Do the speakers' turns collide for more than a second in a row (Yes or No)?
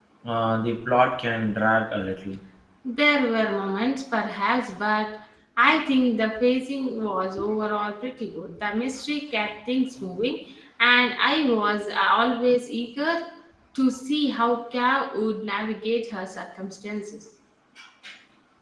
No